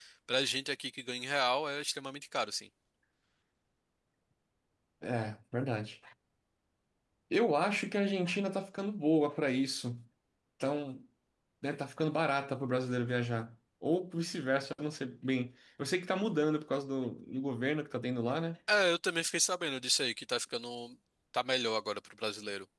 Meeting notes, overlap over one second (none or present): none